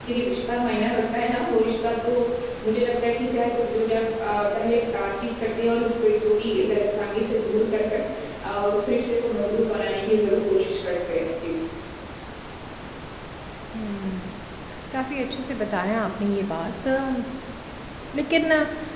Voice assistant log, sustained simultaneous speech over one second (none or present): none